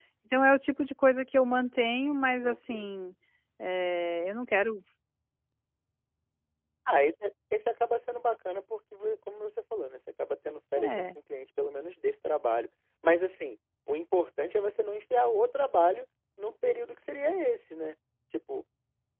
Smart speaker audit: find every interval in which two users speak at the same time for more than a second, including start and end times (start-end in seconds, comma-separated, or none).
none